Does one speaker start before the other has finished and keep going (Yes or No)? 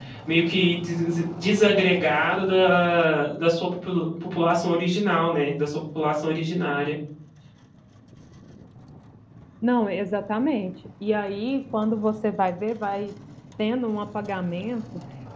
No